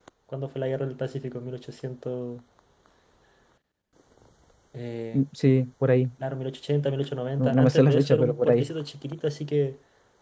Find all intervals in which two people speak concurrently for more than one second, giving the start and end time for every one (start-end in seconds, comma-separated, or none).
7.4-8.7